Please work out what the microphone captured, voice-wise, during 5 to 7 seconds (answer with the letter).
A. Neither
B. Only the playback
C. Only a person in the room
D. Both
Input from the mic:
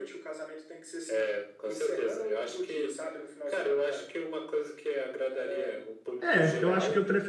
D